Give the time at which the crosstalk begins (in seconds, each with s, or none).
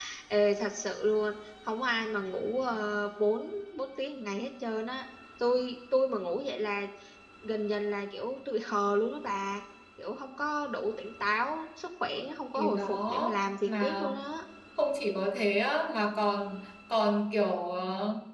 12.5 s